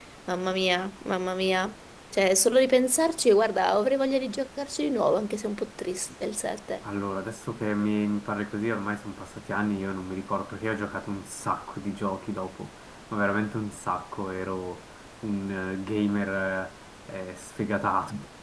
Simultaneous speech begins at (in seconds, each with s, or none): none